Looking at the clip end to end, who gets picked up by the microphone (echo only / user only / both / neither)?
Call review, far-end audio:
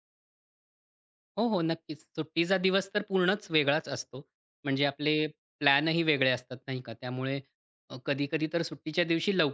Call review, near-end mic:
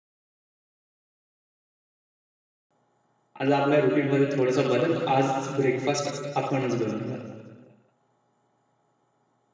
user only